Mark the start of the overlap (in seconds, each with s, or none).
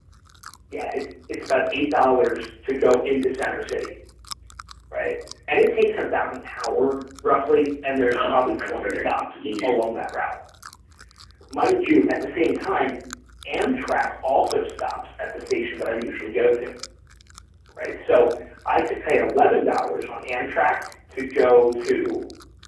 8.1 s